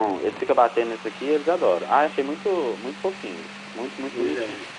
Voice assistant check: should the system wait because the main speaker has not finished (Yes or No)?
No